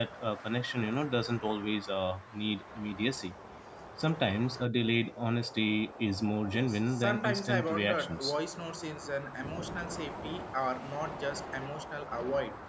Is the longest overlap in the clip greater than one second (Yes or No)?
Yes